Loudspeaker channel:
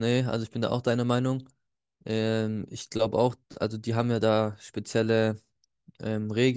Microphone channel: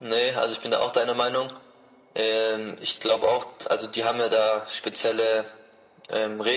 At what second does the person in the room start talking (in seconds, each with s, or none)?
none